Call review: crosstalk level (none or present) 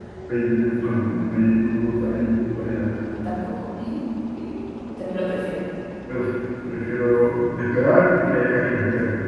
none